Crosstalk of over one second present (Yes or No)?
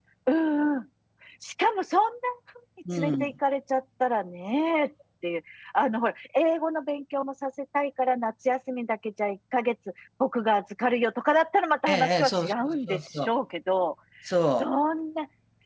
Yes